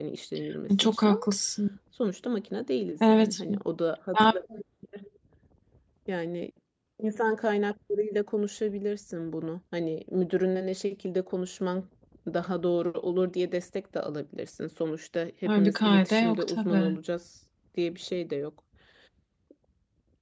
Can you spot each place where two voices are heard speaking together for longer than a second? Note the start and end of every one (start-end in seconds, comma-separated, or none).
15.4-17.0